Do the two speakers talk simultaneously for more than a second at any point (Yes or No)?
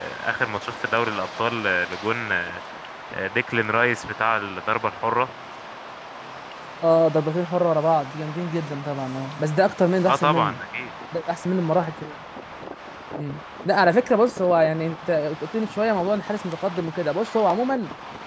No